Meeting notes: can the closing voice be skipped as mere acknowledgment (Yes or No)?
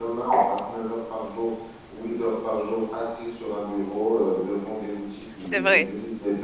Yes